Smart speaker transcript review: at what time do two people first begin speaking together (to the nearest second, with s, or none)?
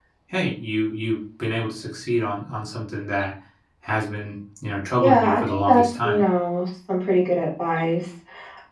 5 s